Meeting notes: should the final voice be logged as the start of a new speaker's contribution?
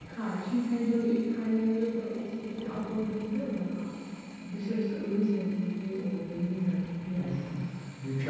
Yes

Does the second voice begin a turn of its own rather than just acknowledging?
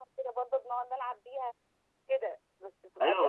Yes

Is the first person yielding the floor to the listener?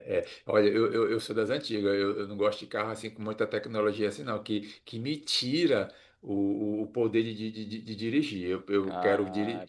Yes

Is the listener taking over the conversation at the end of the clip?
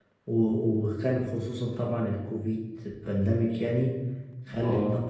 No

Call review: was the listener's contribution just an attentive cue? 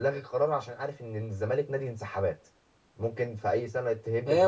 No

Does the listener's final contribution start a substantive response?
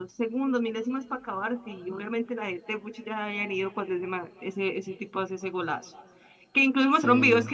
No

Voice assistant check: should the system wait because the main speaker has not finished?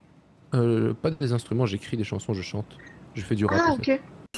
No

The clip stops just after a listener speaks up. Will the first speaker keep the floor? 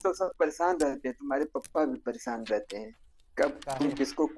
Yes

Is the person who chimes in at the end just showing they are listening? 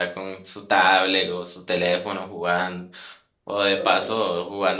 Yes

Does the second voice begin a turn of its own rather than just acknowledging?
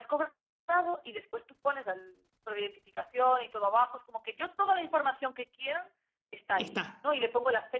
No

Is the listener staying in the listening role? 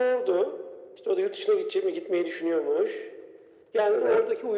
Yes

